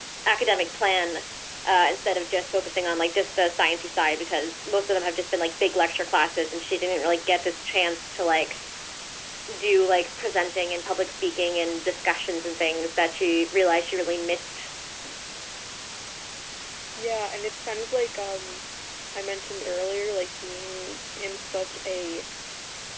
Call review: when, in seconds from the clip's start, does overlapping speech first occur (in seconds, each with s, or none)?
none